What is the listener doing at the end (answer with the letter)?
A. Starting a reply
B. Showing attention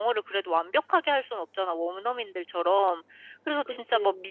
B